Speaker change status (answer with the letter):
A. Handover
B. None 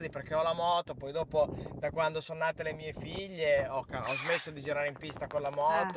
B